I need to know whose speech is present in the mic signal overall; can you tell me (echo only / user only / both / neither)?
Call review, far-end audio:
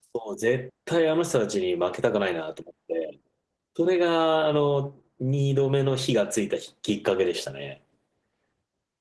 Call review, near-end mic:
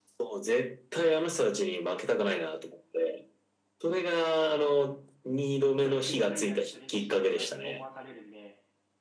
both